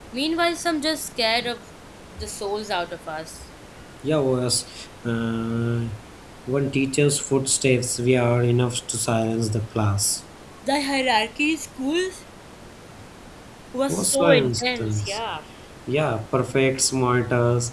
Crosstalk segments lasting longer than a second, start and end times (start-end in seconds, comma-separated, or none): 13.9-15.2